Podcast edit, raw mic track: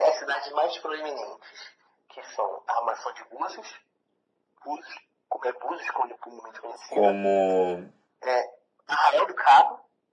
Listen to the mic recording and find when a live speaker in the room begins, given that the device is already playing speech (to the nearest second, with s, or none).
7 s